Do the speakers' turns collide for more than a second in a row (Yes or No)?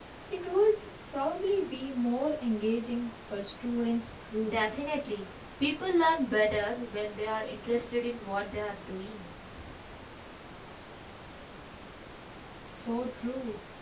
No